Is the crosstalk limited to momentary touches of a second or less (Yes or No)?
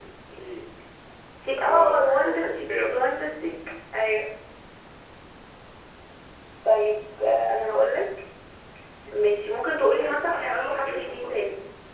No